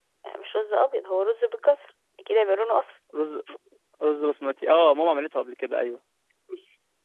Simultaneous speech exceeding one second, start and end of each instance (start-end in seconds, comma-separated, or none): none